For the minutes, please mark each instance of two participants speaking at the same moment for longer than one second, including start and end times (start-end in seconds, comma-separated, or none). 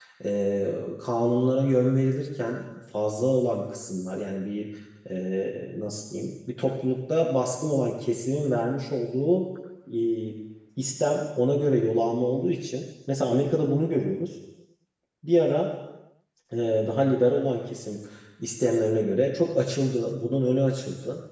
none